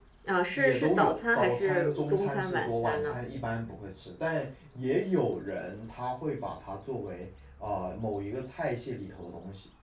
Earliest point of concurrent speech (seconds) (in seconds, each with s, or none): 0.5 s